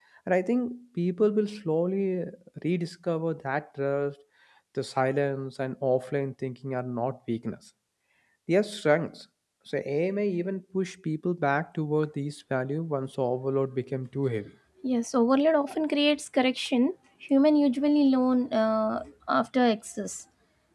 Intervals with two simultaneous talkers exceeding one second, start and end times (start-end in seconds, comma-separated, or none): none